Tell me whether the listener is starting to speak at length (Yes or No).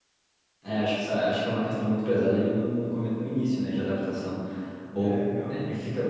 No